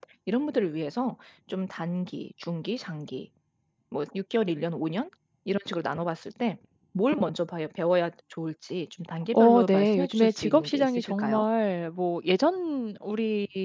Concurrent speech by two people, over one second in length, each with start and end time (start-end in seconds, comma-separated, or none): 9.3-11.4